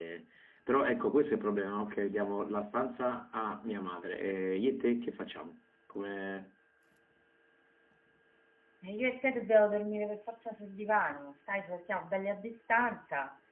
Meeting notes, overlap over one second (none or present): none